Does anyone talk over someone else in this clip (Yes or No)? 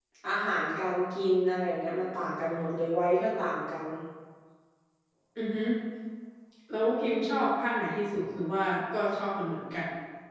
No